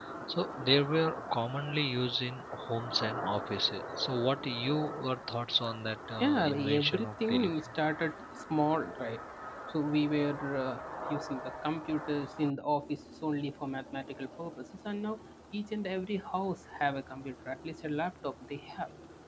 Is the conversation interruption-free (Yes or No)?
No